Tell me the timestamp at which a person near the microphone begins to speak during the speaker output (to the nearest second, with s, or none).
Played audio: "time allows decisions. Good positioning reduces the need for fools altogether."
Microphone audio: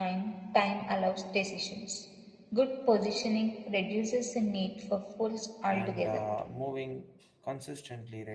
6 s